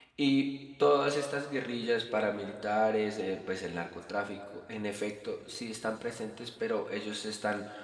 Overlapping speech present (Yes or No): No